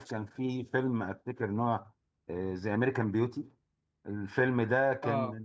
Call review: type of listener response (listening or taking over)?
listening